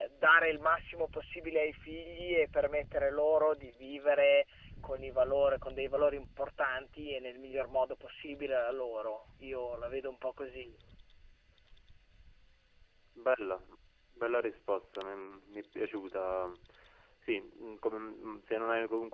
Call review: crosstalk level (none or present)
none